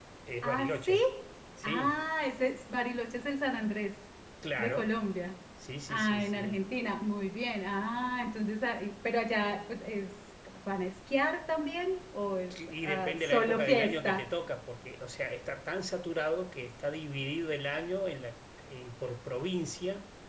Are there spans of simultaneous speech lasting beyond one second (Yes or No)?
Yes